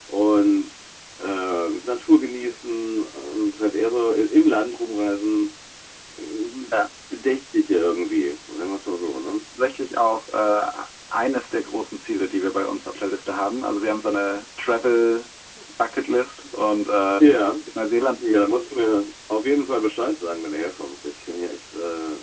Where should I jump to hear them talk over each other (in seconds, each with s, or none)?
none